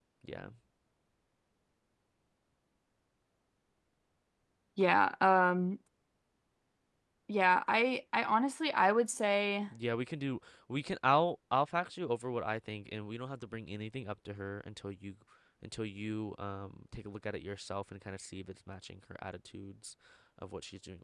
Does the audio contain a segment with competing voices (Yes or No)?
No